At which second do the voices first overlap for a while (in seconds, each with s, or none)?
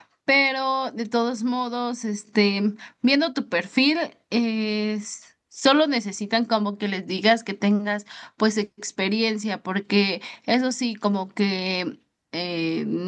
none